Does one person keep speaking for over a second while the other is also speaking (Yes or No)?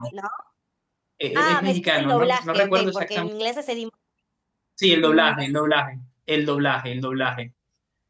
Yes